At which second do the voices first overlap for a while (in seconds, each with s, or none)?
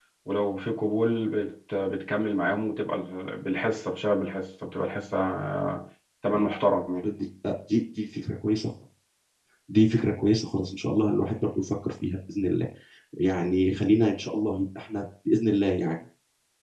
none